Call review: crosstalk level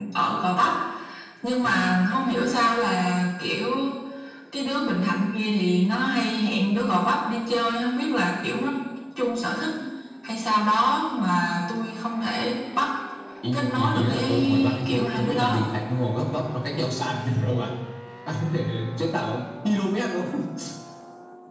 present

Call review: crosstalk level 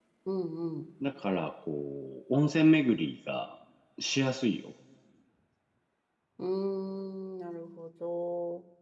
none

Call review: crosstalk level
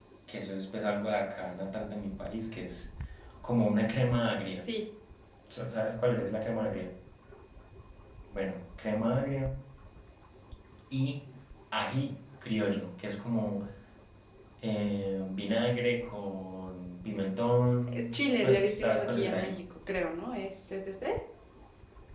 present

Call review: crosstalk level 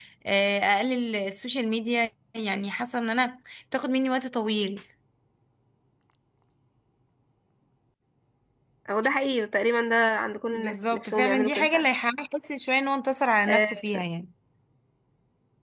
present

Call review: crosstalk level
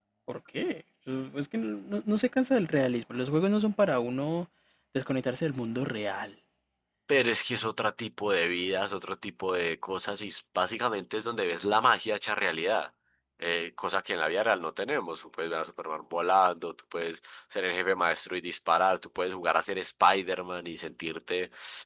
none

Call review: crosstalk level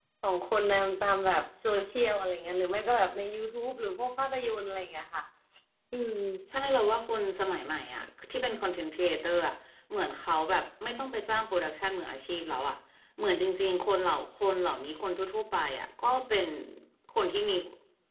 none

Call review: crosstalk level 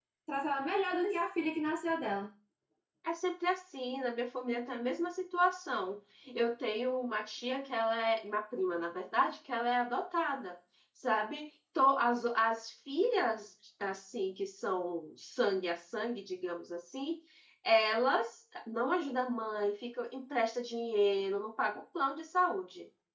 none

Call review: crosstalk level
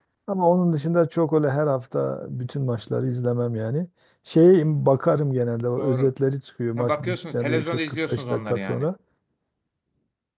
present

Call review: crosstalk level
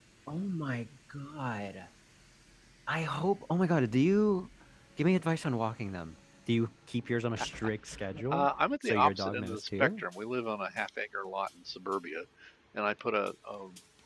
present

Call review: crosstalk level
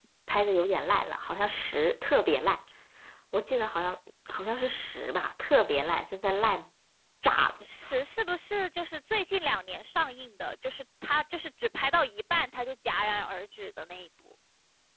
none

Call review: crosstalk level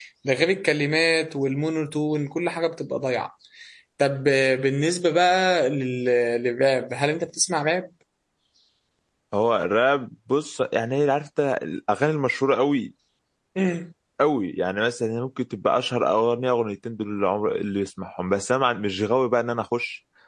none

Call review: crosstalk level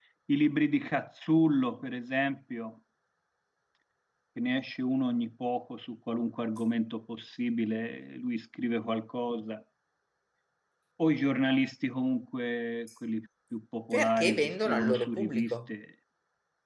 present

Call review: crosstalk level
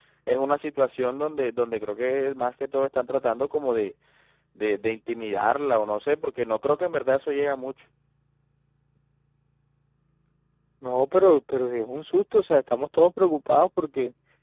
none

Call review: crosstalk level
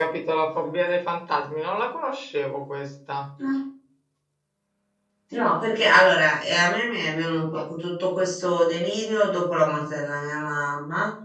none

